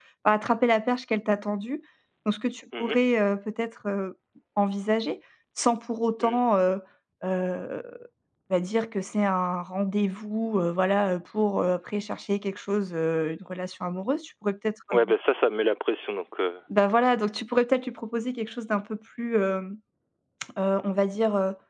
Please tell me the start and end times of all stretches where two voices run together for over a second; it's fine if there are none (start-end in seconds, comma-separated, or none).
none